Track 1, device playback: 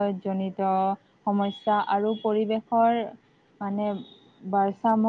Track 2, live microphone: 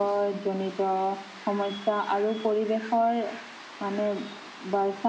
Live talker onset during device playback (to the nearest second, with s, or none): none